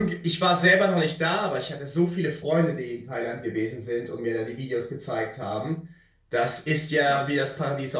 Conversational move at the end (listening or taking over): listening